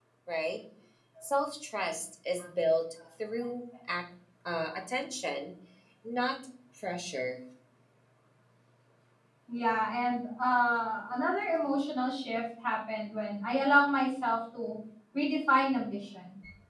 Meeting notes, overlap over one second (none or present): none